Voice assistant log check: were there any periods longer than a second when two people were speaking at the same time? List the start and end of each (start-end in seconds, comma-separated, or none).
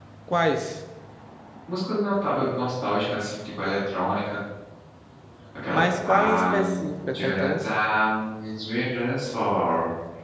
5.7-7.6